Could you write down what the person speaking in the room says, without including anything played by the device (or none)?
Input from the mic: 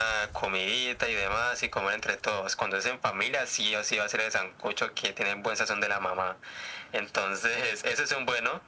none